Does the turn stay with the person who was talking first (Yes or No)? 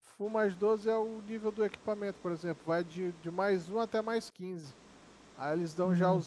Yes